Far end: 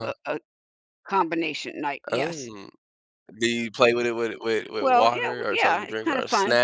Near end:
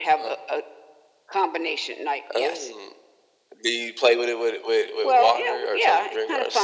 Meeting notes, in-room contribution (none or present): none